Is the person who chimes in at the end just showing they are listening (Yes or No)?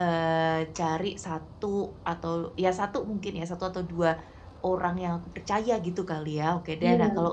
Yes